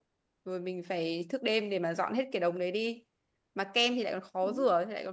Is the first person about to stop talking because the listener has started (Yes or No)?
No